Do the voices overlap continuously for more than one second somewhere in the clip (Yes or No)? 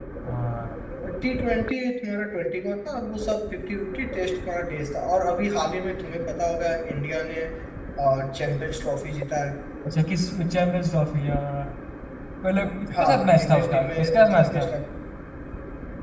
Yes